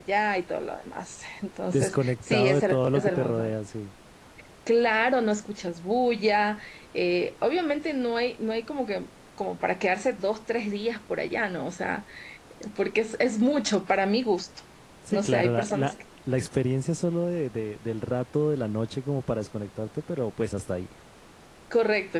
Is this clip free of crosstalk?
No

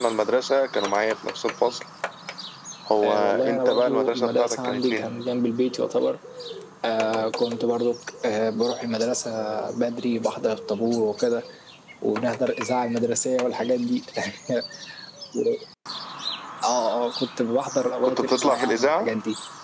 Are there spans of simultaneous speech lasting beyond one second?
Yes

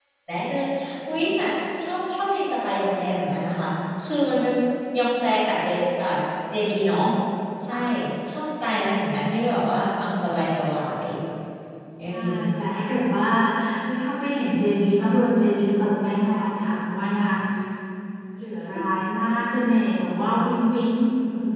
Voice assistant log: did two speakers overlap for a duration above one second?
No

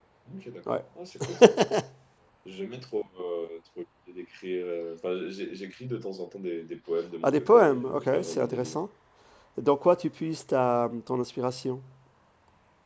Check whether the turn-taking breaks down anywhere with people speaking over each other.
Yes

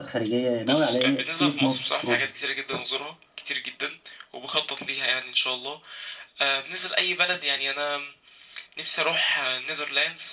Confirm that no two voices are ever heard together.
No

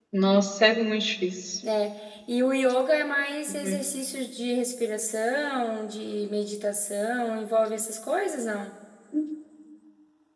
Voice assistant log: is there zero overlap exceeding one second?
Yes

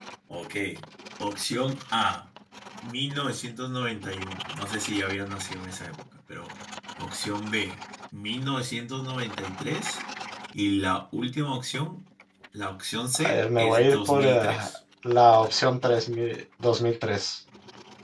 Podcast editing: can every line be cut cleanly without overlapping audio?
No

